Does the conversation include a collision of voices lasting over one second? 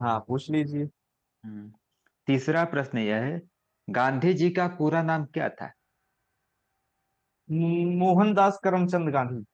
No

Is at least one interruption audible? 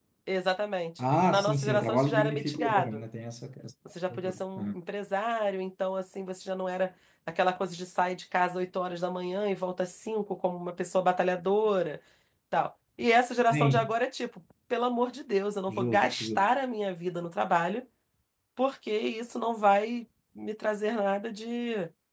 Yes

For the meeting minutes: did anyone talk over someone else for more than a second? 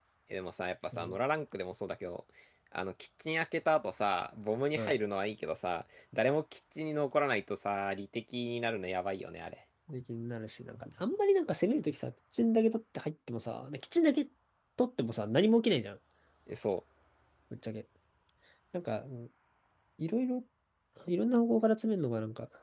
No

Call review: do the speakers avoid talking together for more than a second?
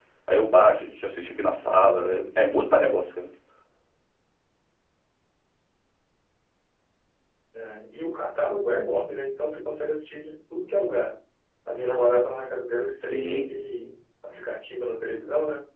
Yes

